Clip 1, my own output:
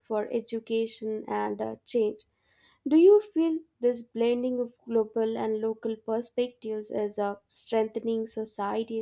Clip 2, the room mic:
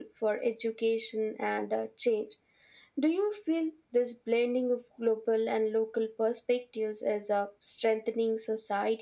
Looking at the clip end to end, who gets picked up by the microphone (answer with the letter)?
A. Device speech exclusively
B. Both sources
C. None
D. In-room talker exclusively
A